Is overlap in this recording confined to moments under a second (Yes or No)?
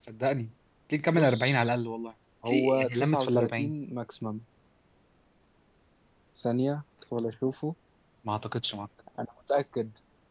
No